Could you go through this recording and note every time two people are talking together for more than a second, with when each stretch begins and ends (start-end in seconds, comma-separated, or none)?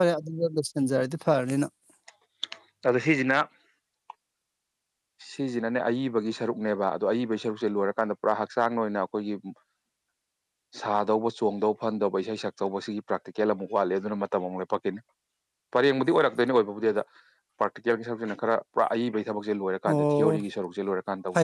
none